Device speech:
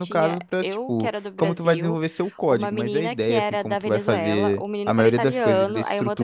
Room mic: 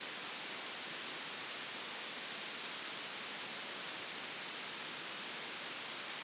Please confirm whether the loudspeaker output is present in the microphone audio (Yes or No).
No